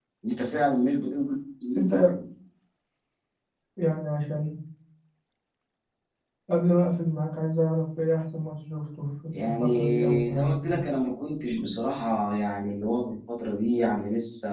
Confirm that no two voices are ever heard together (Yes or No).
No